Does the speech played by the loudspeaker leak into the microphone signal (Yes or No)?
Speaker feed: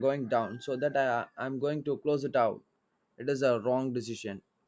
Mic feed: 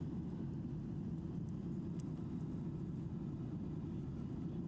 No